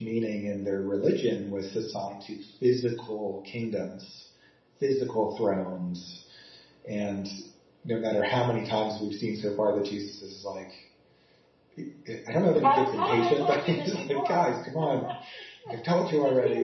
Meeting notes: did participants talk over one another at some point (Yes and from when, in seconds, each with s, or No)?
Yes, from 12.6 s